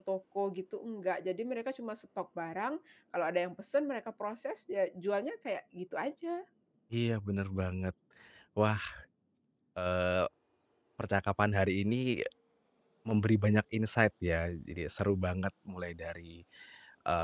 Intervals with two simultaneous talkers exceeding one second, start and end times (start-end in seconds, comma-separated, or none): none